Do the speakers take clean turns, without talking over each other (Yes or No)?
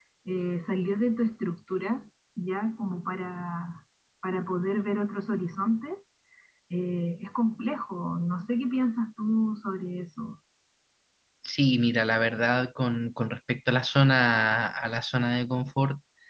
Yes